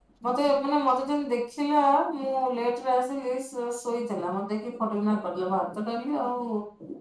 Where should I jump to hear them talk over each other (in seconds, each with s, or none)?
none